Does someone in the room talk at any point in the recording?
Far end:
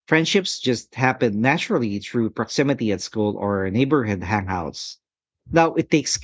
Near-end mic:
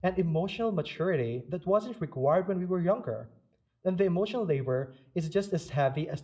Yes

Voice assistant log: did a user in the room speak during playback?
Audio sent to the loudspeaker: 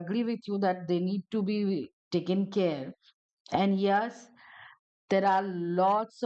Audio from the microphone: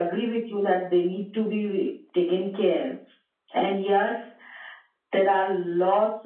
No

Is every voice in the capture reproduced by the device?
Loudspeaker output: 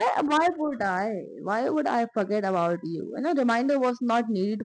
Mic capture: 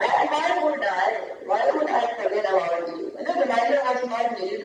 Yes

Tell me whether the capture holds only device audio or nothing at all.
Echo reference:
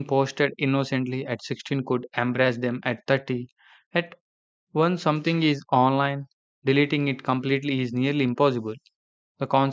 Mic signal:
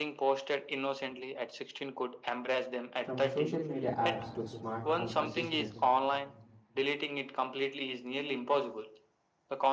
No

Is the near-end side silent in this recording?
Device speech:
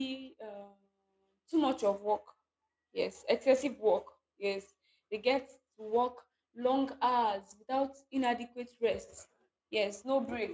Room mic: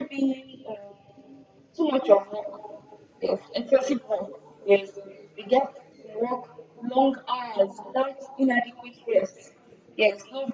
Yes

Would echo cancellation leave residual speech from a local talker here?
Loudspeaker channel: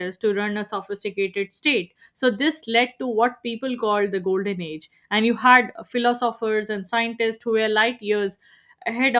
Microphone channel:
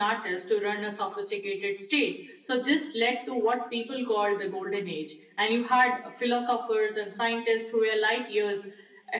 No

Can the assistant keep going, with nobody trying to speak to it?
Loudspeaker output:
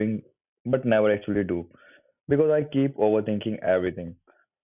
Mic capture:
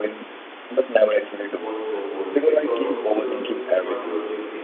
No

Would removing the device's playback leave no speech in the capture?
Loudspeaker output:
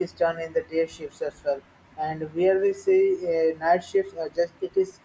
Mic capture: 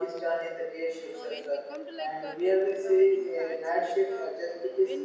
No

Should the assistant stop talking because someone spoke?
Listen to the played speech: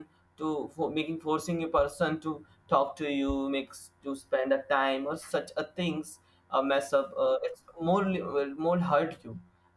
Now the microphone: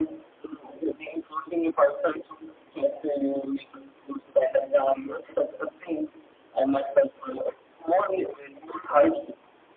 No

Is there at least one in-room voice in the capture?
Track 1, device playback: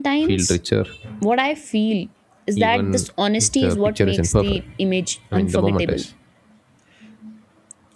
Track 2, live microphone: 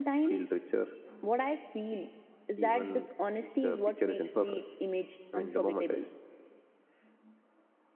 No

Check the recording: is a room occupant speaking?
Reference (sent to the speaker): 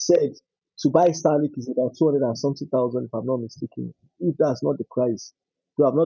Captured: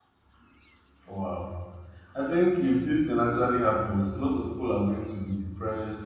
Yes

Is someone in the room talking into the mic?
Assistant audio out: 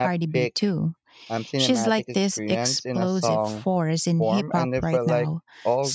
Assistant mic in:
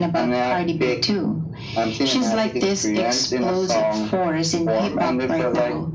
No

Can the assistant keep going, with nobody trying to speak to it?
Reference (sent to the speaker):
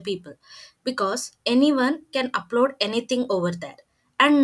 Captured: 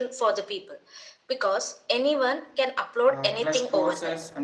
No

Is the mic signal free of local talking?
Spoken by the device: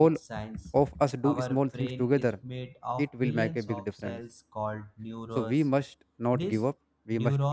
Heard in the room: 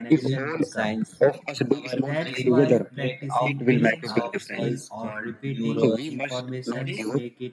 No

